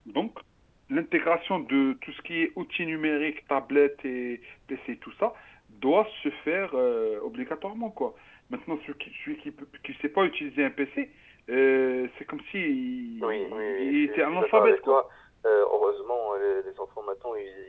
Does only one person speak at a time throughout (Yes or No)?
No